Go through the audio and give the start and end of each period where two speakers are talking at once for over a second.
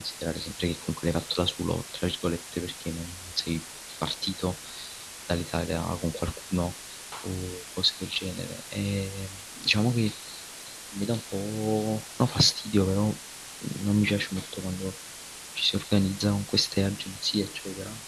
none

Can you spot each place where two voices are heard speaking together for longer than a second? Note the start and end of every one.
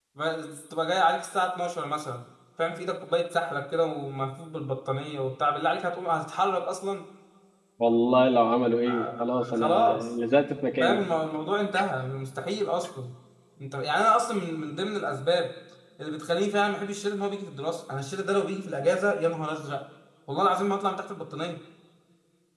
8.9-10.1

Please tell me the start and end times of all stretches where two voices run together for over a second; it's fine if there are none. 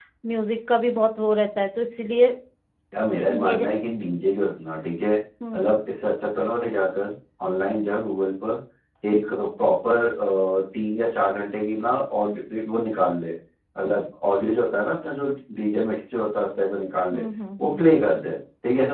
none

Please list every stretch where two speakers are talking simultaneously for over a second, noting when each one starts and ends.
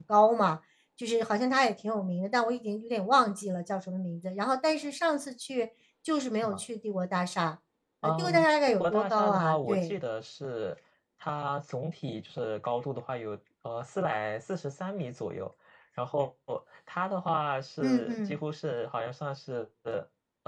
8.0-9.9

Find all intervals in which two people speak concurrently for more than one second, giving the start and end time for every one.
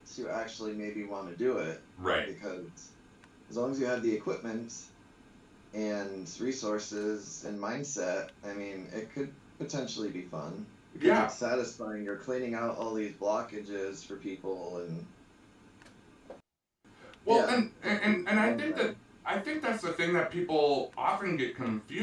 17.3-18.9

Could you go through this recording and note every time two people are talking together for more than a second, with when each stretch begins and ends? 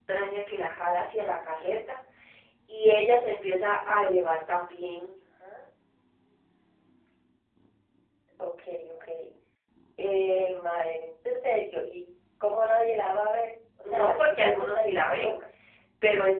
13.9-15.3

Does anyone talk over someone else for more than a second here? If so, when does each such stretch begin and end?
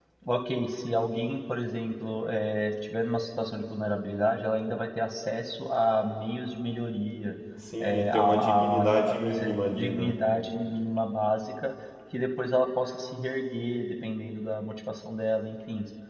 7.8-10.2

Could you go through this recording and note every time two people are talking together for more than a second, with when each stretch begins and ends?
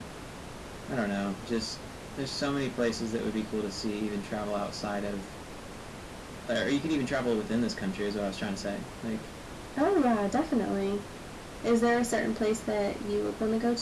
none

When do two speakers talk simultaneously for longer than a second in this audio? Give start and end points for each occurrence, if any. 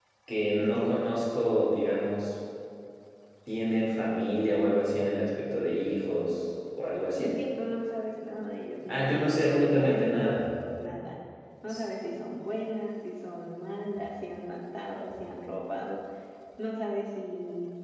8.9-10.4

